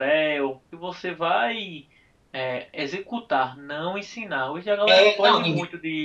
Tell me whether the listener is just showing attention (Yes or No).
No